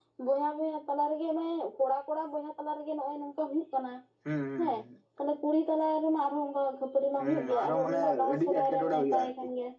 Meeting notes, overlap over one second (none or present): present